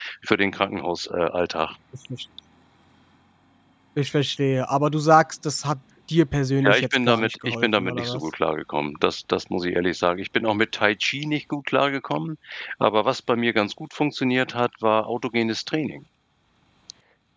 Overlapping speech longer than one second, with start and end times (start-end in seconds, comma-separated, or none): 6.6-8.3